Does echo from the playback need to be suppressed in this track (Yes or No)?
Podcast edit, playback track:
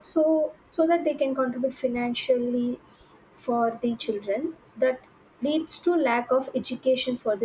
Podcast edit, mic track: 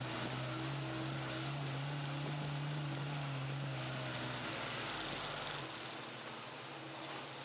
No